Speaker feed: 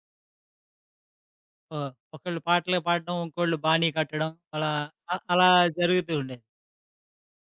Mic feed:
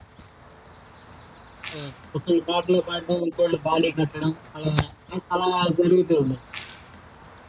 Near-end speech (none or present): none